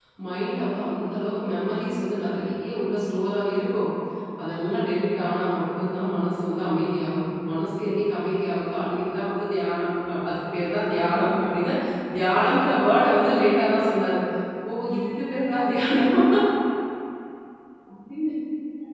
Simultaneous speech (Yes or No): No